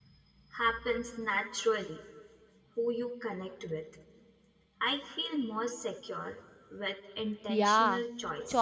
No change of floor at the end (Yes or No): No